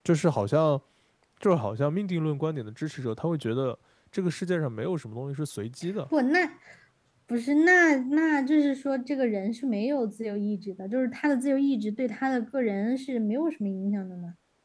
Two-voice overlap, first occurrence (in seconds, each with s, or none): none